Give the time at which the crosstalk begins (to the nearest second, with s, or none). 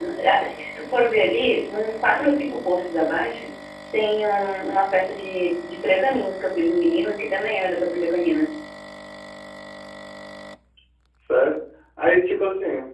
none